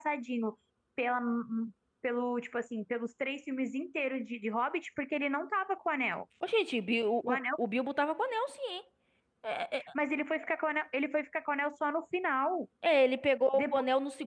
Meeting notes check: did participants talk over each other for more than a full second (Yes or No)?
No